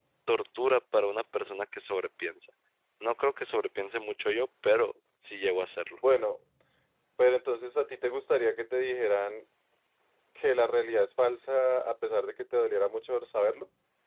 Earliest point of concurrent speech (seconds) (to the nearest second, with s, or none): none